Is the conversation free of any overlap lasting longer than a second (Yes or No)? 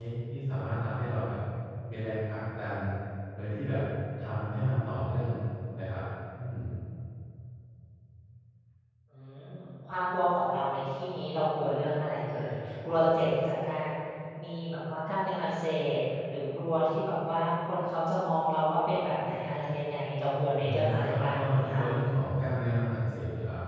No